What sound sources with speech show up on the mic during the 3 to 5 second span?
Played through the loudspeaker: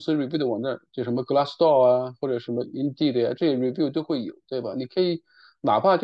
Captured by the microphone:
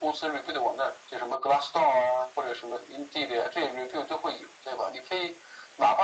echo only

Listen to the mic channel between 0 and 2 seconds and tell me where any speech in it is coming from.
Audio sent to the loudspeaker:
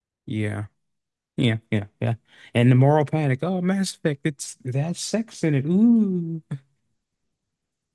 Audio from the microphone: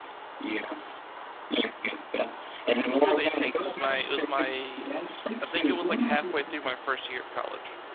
echo only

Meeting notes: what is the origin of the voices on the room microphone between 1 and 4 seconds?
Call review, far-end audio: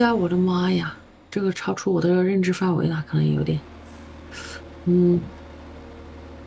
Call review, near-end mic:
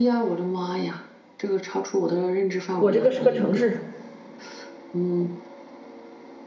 both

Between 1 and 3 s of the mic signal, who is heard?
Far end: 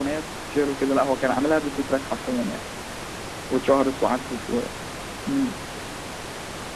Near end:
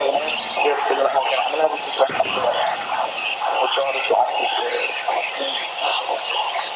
echo only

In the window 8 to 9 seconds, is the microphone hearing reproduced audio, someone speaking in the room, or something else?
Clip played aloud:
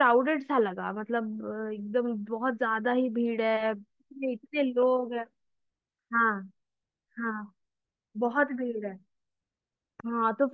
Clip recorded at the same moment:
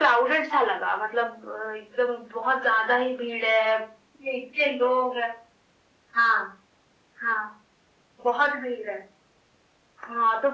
echo only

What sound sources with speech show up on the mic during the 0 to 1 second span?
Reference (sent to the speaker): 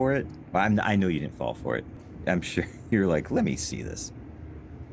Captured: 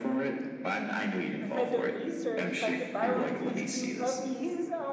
echo only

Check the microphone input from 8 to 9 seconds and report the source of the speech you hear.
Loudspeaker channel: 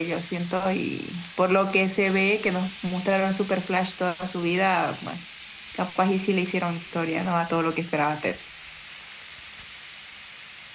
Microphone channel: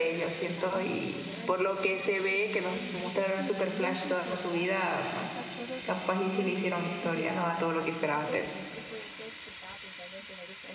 both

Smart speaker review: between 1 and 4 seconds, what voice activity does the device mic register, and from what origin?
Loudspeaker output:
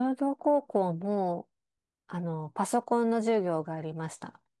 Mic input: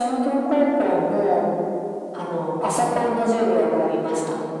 echo only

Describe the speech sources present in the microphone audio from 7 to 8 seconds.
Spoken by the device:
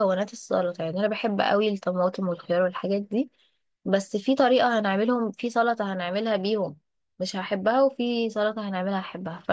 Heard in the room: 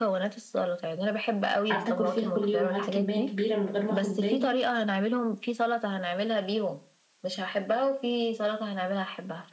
echo only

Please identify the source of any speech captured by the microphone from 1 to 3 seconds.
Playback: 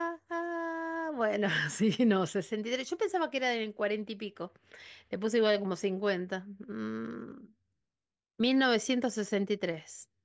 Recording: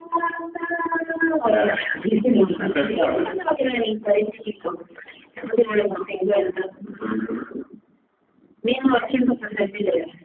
both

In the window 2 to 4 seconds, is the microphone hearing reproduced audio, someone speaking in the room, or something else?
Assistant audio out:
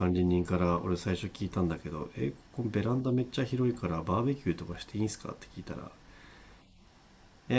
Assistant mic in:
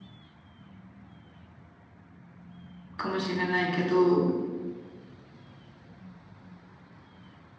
user only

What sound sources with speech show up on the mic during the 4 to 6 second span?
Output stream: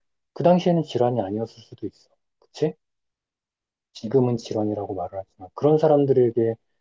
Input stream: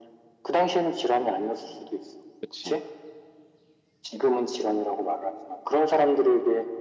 echo only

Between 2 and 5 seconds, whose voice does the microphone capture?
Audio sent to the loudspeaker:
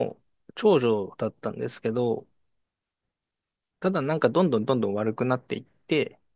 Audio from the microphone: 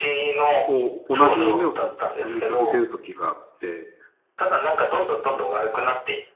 both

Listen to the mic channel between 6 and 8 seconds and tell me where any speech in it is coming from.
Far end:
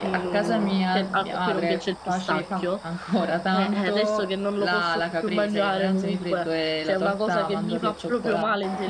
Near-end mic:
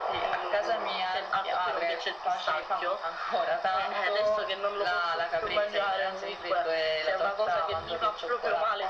echo only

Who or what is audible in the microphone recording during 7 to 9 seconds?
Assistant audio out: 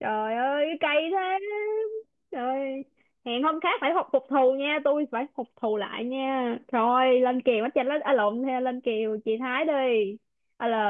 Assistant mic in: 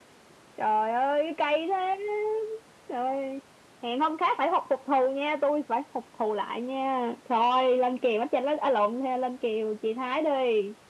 echo only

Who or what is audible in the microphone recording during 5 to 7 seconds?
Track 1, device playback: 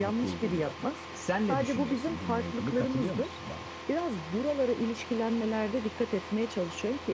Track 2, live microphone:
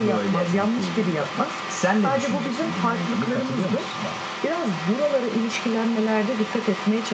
echo only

